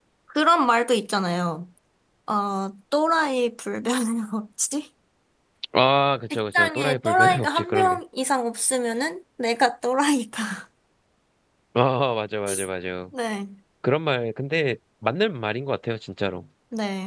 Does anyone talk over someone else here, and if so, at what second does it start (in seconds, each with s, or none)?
6.3 s